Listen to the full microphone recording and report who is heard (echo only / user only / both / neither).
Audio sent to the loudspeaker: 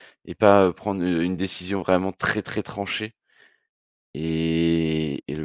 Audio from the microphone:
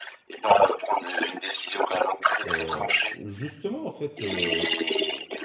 both